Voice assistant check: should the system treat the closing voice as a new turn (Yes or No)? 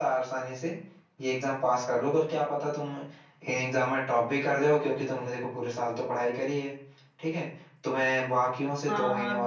Yes